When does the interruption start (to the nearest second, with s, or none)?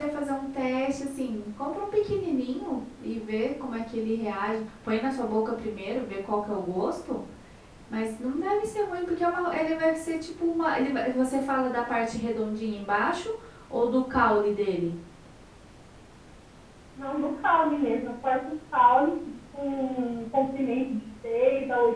none